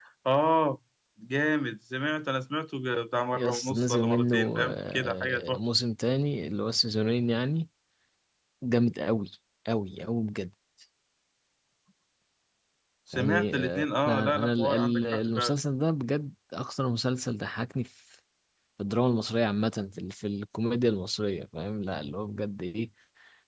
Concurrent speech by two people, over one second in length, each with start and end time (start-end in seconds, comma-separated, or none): 3.4-5.6, 13.1-15.5